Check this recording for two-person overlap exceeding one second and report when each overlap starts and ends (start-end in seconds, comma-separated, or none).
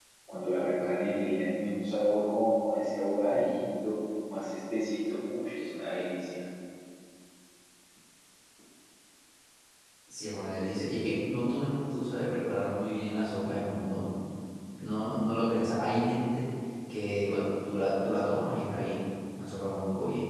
none